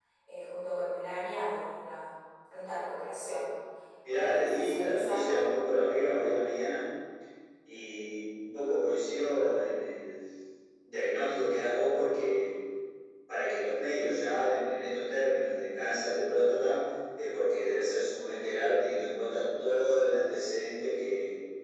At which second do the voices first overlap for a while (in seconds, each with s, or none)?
4.1 s